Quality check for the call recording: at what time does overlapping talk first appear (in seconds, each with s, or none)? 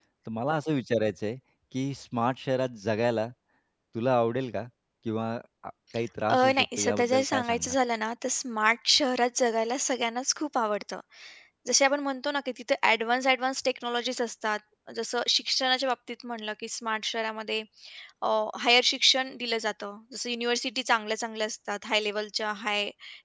6.3 s